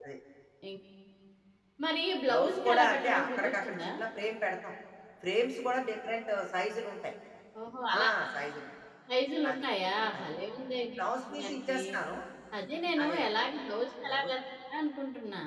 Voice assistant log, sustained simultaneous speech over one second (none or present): present